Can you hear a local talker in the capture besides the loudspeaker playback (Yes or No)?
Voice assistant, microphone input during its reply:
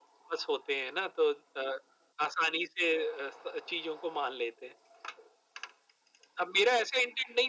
No